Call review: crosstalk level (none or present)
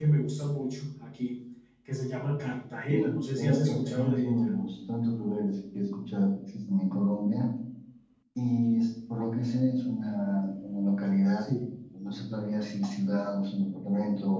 present